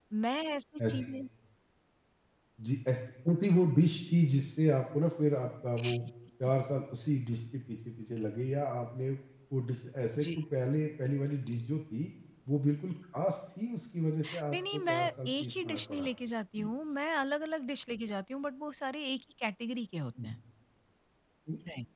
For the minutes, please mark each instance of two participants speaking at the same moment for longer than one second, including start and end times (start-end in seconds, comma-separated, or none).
14.5-16.0